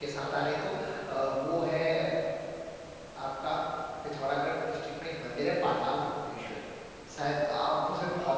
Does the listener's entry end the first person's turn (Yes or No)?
No